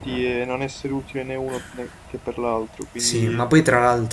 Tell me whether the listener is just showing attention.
No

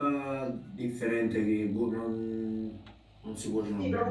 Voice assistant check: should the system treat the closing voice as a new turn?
Yes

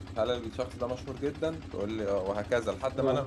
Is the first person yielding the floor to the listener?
Yes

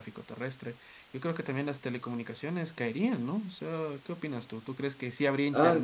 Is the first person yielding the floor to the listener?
Yes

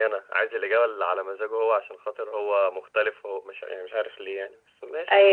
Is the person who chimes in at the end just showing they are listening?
No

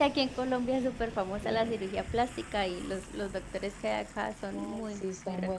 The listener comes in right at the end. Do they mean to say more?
Yes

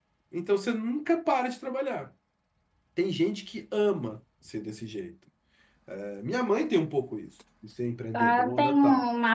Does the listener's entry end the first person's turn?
Yes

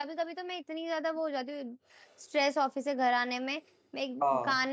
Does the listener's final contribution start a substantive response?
No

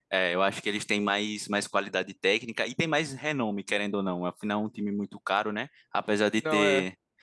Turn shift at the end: No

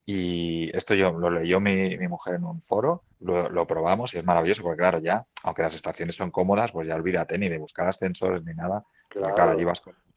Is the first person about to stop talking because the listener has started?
No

